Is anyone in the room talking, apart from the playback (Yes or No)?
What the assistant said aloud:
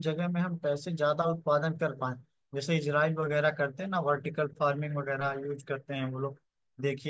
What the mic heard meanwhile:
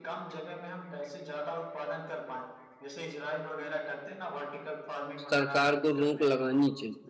Yes